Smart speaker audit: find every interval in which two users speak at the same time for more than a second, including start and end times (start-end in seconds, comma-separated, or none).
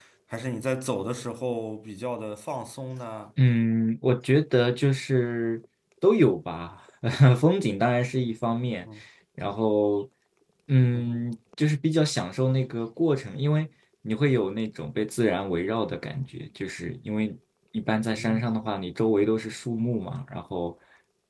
none